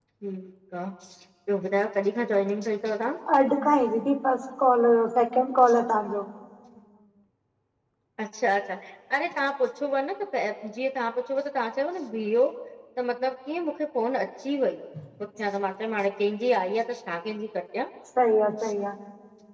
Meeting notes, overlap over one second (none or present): none